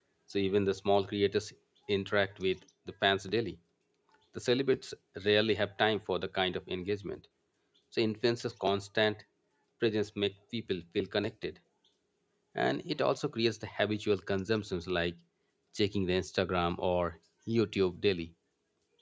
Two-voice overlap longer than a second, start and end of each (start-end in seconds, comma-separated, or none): none